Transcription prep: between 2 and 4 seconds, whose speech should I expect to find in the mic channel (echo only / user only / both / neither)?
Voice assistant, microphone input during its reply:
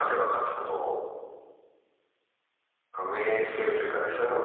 echo only